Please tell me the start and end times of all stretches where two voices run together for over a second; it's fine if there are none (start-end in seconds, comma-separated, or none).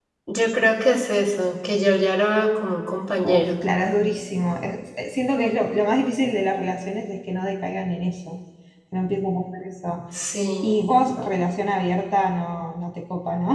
none